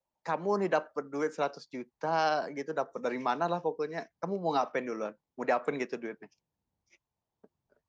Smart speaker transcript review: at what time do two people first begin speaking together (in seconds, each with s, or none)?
none